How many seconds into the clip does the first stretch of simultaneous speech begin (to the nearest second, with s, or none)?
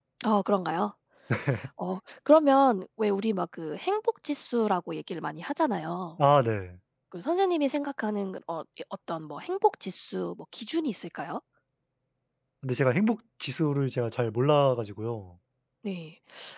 none